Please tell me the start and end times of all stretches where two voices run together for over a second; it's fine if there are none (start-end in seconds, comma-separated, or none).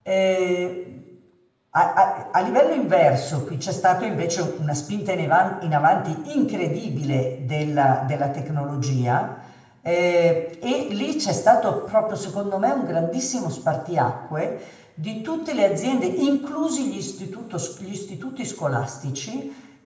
none